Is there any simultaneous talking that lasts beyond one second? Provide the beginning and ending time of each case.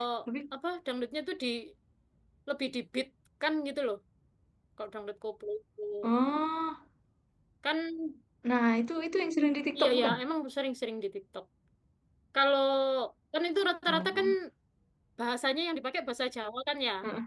none

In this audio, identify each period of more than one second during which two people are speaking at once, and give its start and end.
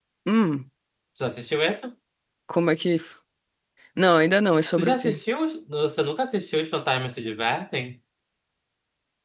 none

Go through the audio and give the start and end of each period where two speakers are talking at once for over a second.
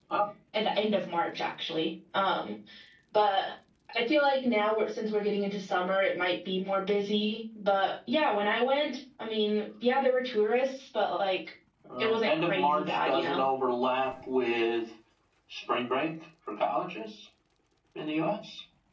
12.0-13.4

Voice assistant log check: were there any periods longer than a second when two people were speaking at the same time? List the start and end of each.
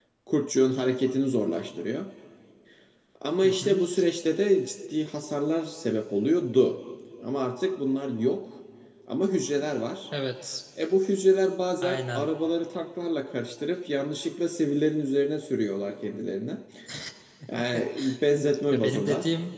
none

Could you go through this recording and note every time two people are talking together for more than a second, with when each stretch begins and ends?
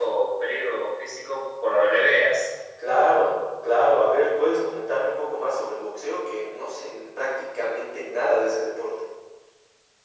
none

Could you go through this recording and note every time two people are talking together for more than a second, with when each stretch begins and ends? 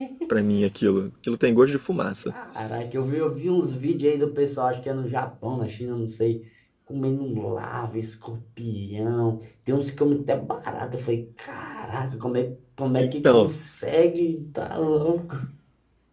none

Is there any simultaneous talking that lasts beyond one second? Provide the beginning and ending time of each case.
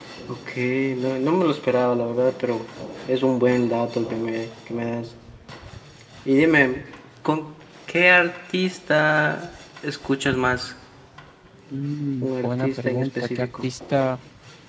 12.2-13.7

